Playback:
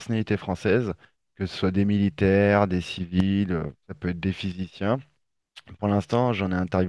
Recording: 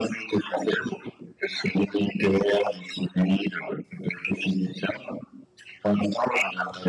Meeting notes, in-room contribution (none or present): none